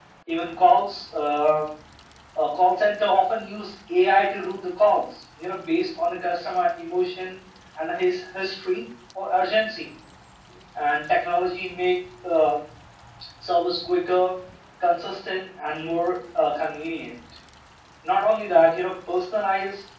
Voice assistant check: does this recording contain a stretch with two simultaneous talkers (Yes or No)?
No